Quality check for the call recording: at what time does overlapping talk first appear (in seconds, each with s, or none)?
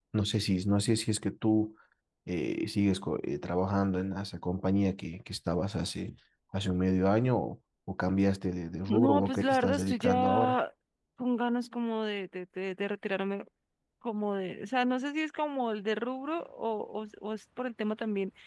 8.9 s